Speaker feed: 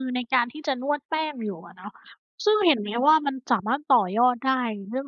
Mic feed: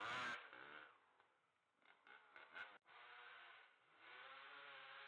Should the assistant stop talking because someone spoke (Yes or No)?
No